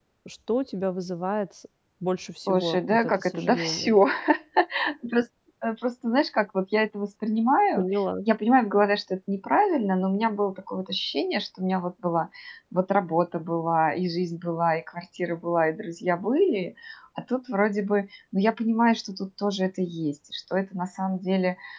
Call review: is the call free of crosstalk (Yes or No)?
No